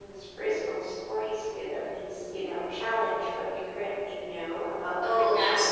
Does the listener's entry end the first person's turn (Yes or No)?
Yes